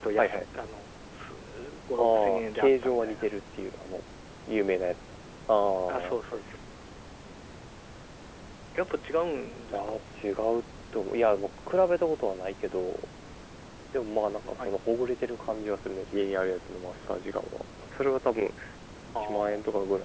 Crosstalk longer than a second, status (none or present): present